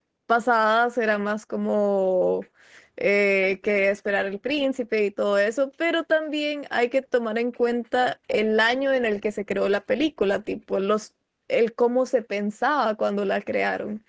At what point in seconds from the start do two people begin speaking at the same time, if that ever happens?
none

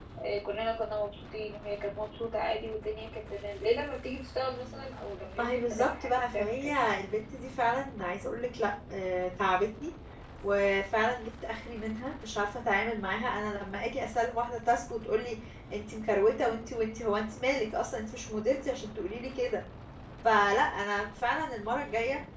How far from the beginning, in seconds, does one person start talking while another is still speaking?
5.4 s

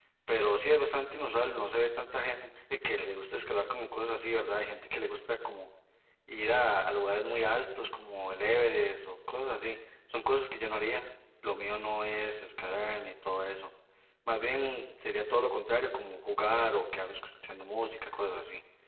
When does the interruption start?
none

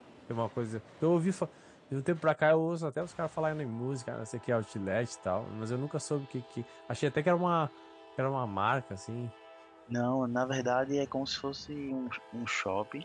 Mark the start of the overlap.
none

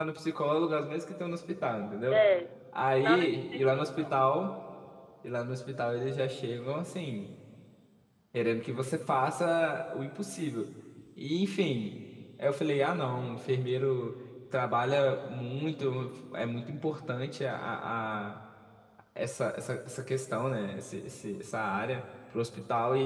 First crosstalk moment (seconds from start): 2.8 s

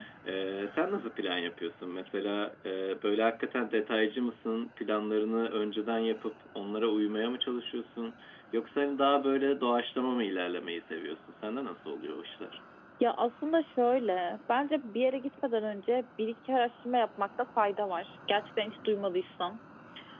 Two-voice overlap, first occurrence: none

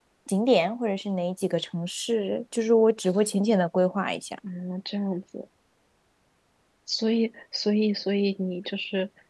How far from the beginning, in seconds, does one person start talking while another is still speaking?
none

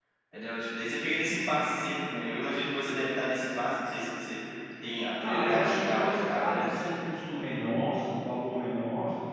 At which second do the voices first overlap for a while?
5.2 s

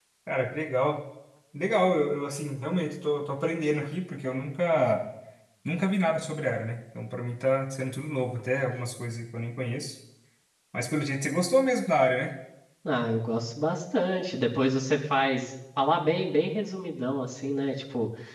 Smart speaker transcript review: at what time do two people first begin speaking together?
none

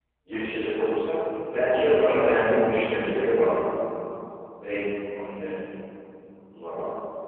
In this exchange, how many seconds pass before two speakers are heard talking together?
1.7 s

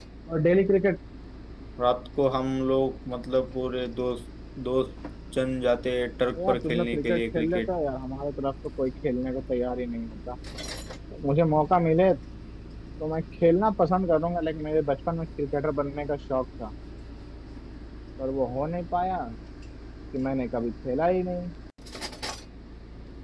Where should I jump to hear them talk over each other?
6.4 s

